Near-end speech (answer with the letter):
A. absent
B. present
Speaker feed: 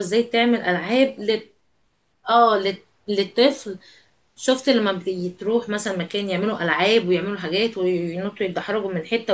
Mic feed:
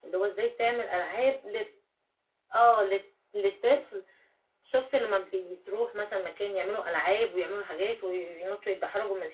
A